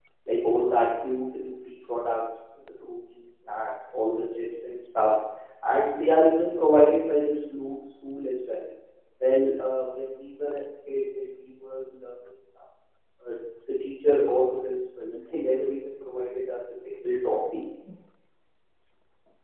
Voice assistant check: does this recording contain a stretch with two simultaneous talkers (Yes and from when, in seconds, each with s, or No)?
No